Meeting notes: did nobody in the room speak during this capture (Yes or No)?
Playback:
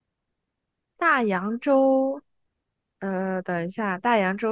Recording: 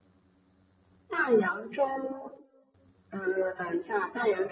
Yes